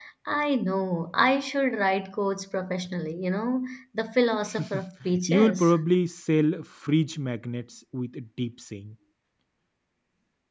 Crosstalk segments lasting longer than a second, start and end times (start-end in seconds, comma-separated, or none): none